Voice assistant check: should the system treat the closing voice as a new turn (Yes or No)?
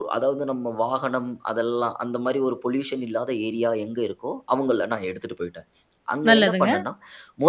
No